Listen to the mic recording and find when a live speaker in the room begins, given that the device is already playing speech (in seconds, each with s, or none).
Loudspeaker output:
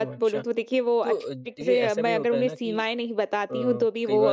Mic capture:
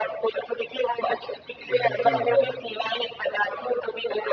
1.7 s